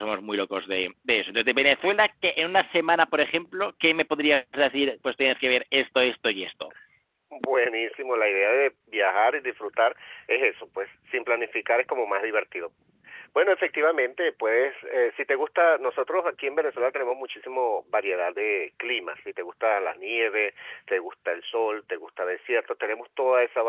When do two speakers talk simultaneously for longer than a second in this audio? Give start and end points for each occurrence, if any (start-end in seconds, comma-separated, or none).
none